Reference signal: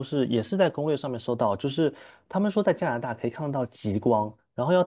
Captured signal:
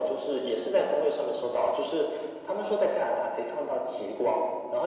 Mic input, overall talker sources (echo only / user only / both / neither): echo only